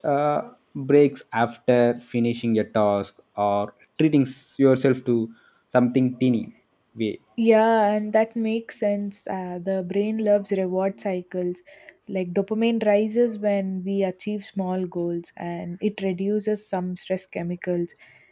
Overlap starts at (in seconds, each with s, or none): none